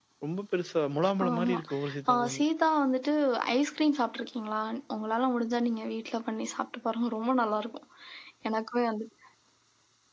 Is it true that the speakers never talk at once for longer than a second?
Yes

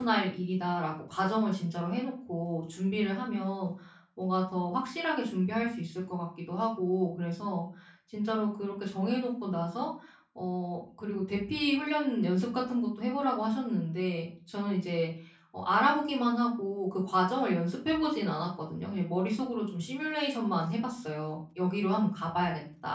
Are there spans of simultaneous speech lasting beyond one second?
No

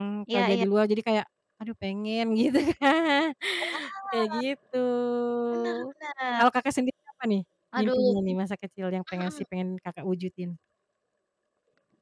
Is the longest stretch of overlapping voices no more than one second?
Yes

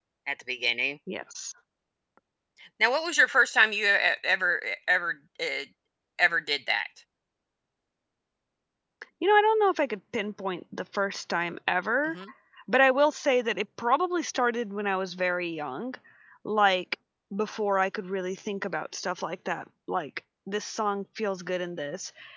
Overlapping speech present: No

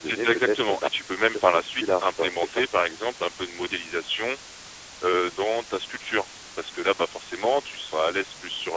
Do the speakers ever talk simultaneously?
Yes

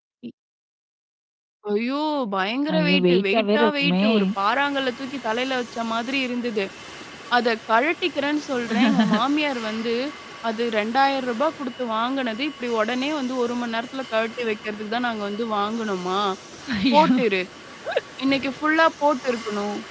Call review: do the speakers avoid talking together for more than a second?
No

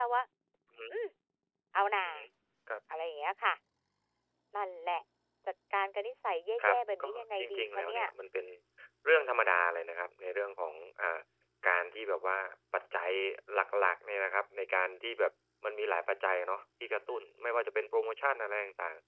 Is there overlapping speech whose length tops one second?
Yes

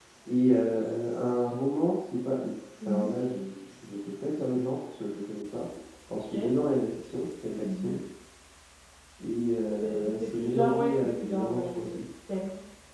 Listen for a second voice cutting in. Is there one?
Yes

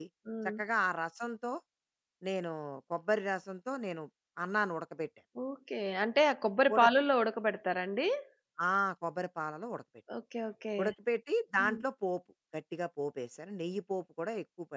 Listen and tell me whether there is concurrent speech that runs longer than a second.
No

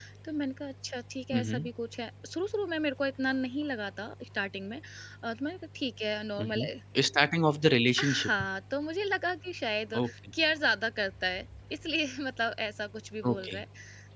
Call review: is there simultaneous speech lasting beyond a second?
No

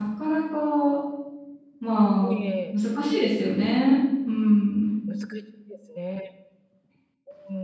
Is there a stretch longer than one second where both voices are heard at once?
No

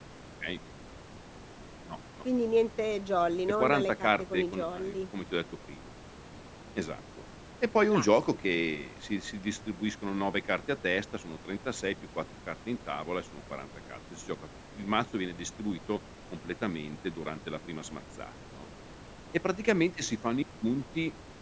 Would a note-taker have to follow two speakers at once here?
Yes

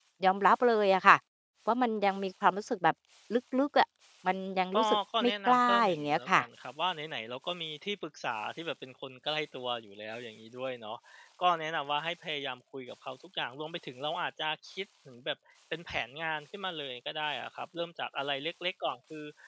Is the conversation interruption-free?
No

